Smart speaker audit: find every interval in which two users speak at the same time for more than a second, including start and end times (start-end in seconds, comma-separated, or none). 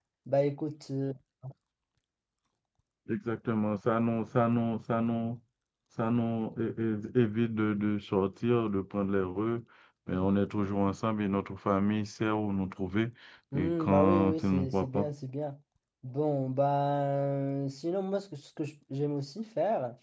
13.5-15.1